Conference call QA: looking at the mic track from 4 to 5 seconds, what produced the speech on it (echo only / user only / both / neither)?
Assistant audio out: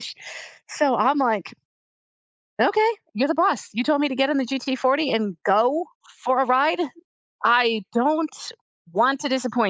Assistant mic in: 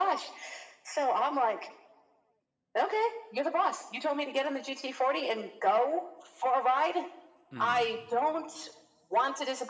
echo only